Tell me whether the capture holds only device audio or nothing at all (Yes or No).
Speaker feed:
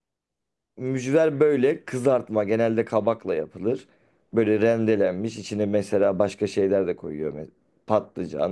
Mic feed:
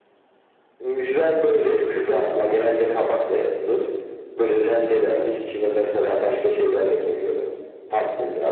Yes